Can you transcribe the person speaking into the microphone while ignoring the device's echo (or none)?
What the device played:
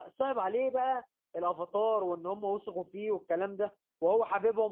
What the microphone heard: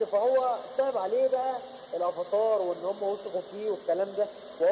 none